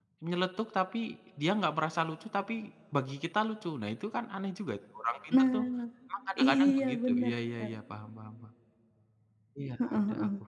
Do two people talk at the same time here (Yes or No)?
Yes